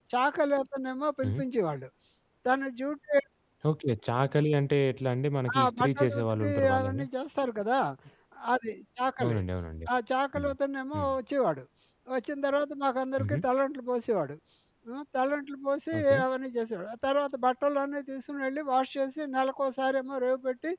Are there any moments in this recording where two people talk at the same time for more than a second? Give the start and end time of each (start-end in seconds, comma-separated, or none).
5.6-7.0